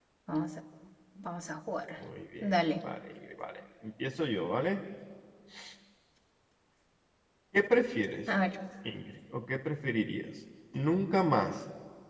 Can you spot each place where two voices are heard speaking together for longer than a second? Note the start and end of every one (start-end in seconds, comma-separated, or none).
none